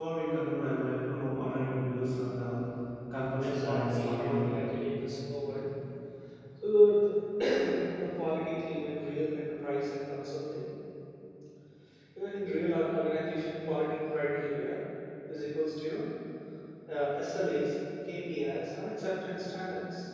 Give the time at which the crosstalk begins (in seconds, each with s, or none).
3.4 s